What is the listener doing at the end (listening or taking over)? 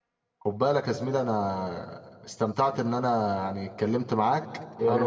taking over